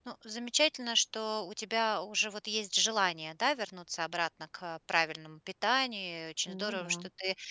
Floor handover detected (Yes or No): No